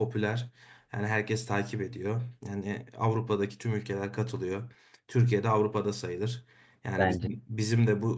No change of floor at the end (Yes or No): Yes